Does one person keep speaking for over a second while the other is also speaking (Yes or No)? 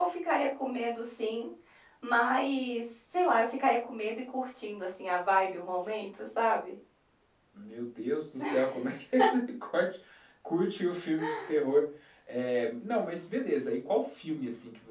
No